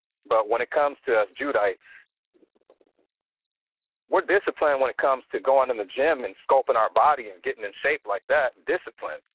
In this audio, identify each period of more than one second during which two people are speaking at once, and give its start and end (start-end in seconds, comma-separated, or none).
none